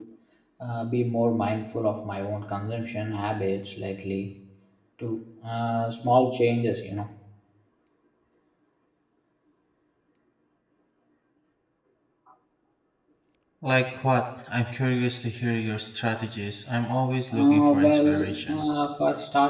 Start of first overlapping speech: 17.3 s

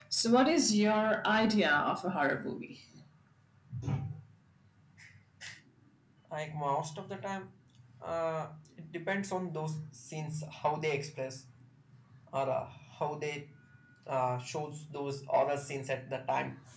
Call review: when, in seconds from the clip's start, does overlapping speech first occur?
none

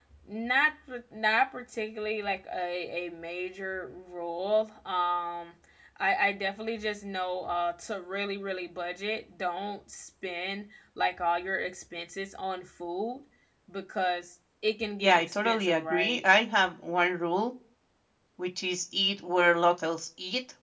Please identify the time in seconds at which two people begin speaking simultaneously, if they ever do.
15.0 s

